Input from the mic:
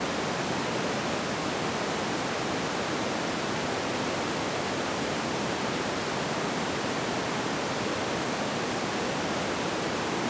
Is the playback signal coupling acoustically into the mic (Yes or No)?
No